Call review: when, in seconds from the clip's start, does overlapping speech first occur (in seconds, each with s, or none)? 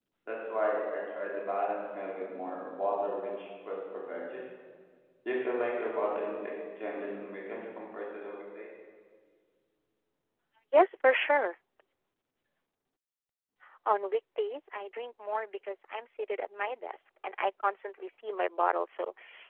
none